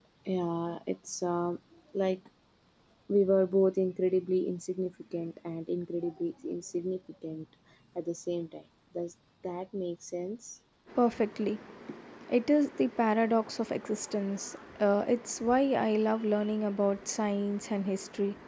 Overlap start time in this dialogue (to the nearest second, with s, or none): none